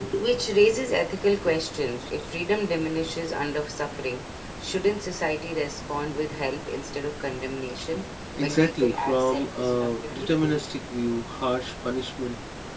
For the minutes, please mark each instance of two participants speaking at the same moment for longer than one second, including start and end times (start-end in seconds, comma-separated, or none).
8.4-10.4